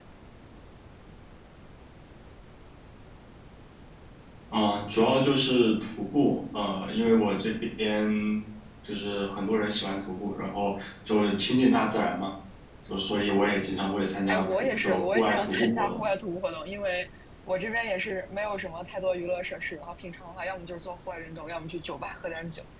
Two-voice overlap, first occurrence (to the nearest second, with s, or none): 14 s